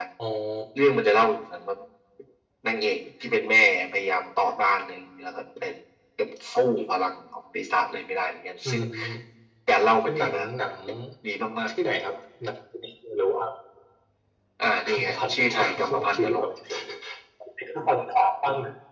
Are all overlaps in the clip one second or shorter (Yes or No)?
No